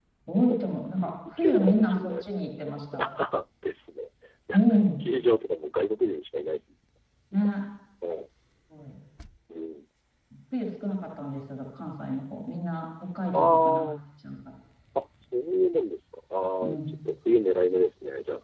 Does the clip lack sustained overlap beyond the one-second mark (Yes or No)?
No